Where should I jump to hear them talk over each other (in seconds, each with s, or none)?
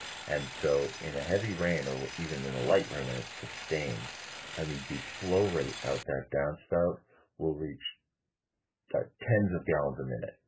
none